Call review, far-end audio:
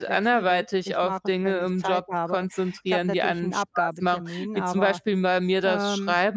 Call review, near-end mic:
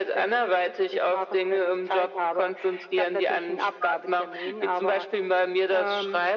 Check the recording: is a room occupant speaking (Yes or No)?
No